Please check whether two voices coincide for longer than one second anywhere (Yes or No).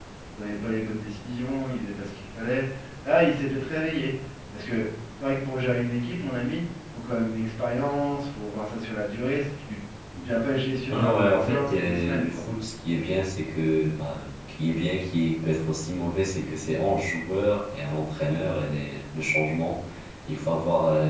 Yes